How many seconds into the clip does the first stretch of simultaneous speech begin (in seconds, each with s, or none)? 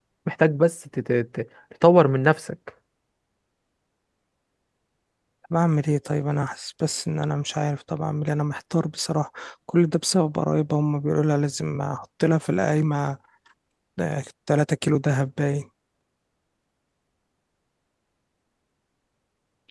none